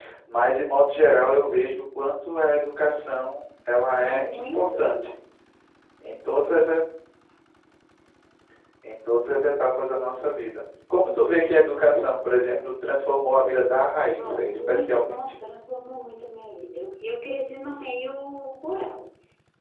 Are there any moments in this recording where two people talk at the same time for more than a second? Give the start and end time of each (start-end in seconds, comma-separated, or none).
3.8-5.1, 14.2-15.3